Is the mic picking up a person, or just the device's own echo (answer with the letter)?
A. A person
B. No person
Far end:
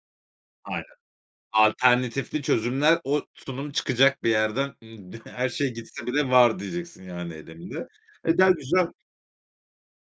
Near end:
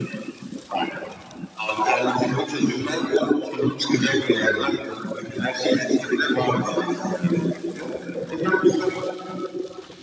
A